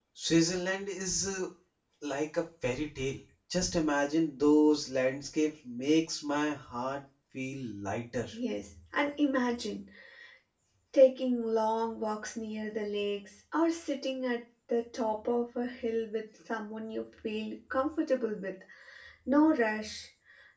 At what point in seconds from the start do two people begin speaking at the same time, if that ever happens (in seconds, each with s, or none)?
none